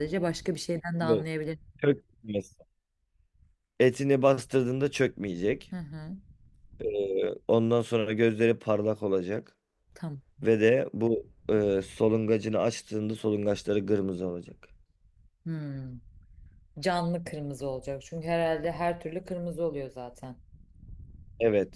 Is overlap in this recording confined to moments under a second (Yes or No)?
Yes